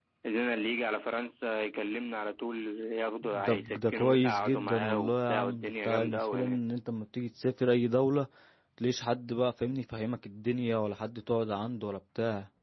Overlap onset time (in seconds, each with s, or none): 3.2 s